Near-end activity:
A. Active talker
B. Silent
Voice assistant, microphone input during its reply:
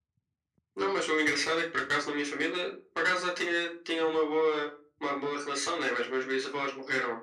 B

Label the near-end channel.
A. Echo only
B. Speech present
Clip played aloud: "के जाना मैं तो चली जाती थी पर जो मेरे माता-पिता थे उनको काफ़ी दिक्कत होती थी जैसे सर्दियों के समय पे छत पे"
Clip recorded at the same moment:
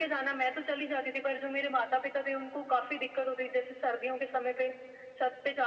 A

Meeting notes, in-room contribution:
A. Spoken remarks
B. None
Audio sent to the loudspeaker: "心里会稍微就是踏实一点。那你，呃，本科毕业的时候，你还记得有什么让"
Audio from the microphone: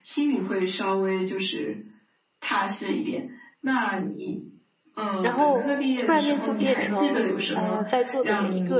A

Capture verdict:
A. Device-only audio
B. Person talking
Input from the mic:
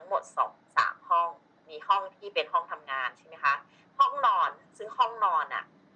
A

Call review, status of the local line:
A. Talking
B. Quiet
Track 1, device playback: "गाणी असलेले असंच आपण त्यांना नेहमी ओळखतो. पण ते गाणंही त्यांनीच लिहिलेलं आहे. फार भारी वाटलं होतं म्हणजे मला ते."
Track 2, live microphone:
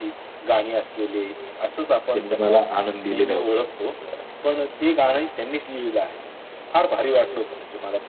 A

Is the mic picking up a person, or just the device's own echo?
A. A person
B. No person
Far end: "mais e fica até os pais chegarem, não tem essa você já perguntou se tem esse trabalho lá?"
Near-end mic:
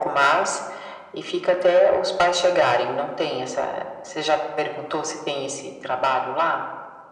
B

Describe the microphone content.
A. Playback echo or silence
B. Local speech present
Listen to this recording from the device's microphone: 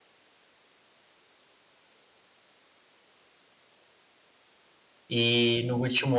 B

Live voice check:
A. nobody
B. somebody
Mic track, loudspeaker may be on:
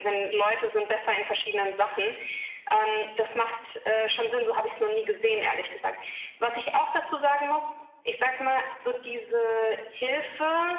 A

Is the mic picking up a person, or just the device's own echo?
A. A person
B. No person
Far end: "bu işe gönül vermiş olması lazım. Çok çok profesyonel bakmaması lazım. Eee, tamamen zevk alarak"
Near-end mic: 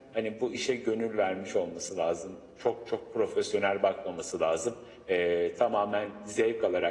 B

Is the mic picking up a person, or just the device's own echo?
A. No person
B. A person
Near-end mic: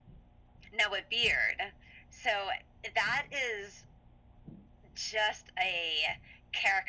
A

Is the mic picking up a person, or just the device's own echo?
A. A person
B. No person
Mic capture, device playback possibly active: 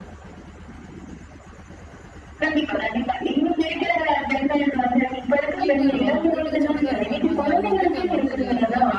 A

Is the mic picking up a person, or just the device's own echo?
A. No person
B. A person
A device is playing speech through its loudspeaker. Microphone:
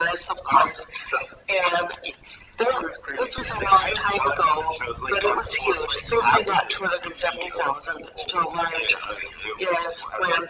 A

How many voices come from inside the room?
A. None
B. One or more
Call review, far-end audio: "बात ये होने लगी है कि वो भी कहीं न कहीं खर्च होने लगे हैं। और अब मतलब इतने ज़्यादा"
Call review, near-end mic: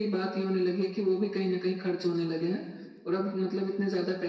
A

